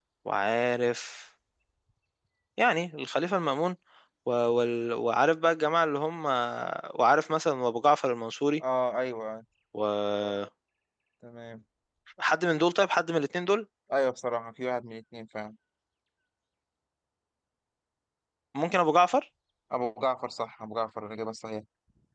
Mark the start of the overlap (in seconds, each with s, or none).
none